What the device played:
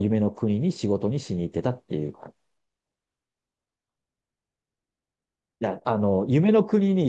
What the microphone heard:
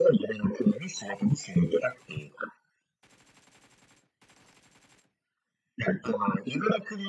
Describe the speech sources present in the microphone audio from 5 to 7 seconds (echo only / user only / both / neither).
echo only